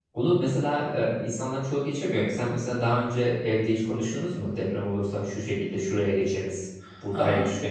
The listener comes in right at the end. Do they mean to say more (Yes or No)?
Yes